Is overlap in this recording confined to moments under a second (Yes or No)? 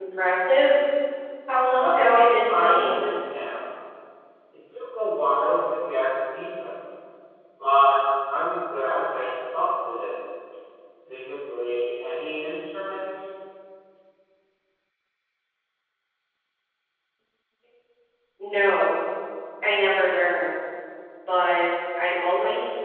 No